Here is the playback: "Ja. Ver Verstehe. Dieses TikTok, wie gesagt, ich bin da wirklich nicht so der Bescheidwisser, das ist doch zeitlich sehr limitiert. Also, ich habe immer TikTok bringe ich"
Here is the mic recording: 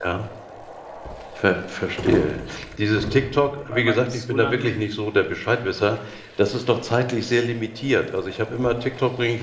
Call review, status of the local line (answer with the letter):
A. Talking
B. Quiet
A